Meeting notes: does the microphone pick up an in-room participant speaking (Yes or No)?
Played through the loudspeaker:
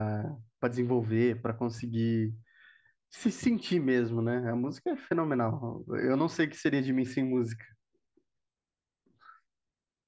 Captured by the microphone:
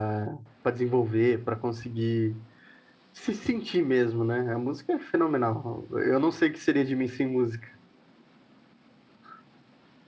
No